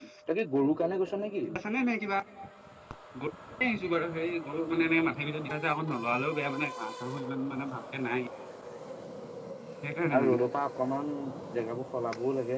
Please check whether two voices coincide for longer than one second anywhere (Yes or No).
No